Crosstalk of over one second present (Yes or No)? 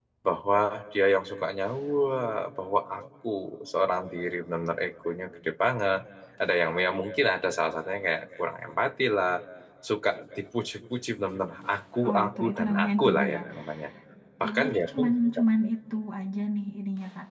Yes